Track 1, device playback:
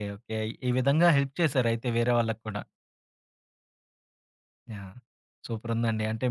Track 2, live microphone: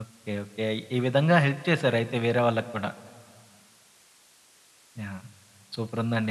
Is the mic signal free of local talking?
Yes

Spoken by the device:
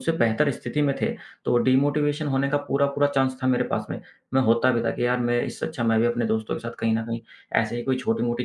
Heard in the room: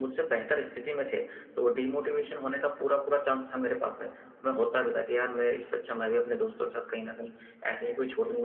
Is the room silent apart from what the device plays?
Yes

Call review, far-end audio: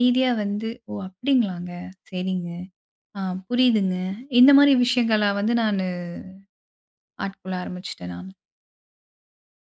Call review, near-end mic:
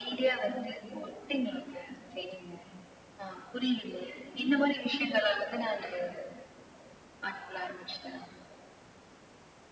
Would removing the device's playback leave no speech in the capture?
Yes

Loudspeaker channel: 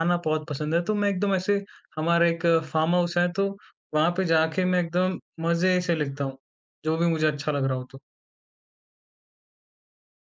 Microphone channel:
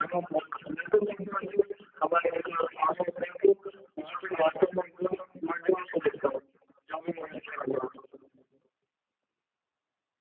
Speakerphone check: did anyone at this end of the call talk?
No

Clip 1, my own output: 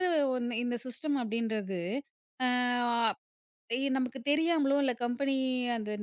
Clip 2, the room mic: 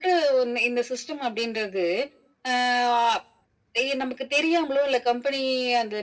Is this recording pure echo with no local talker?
Yes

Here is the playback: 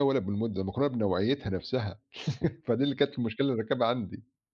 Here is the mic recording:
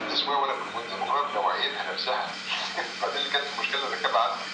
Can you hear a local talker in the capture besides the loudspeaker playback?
No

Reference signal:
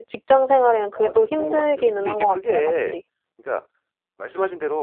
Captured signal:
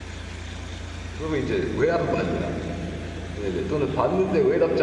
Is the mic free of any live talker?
No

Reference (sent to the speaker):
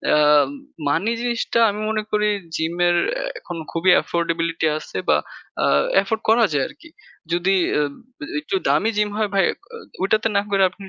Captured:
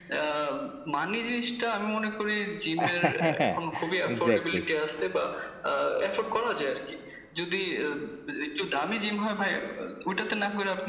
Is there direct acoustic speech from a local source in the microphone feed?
Yes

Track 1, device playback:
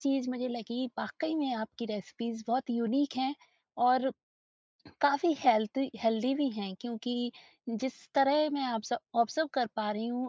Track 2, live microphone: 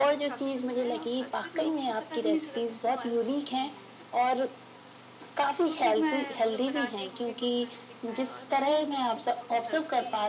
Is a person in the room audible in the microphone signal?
Yes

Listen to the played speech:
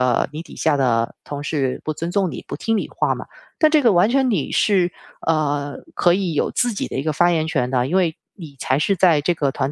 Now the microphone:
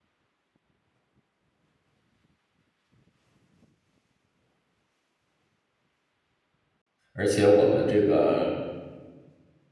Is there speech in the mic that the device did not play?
Yes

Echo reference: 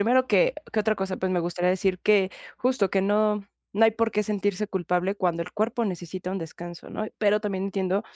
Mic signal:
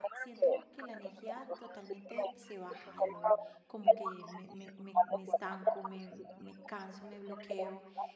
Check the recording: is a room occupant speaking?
Yes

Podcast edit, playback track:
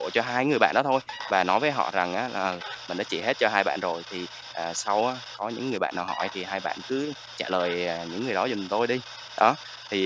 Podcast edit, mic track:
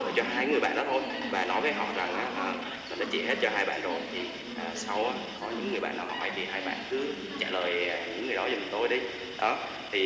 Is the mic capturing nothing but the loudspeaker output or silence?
No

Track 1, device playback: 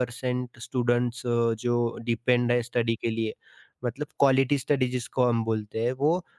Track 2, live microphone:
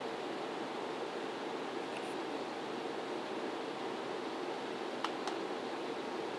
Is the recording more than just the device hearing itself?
No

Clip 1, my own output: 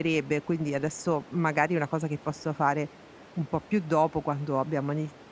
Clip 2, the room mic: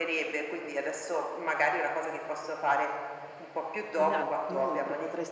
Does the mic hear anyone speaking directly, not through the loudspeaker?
Yes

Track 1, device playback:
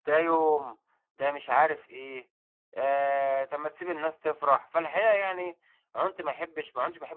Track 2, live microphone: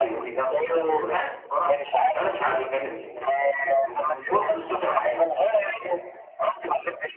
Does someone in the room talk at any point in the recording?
Yes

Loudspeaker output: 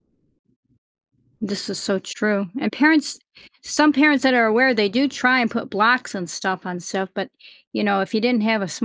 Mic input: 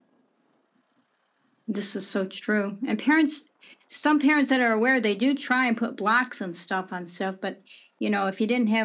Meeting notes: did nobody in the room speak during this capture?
Yes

